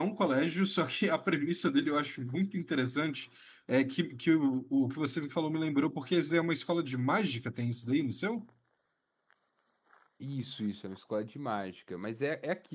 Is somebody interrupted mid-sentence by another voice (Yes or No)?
No